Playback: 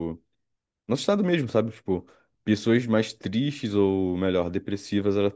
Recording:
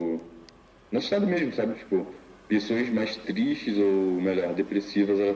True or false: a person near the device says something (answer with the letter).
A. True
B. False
B